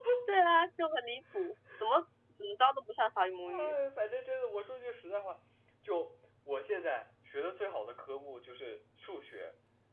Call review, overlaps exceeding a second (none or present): none